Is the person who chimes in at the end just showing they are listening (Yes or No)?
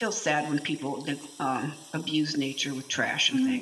No